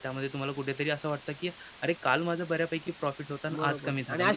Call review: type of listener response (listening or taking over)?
taking over